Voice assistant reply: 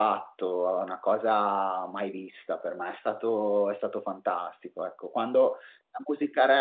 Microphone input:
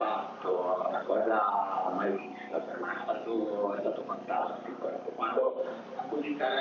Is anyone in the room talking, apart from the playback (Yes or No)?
No